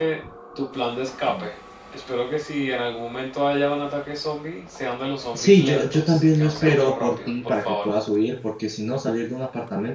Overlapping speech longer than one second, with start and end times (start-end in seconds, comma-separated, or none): 5.3-7.7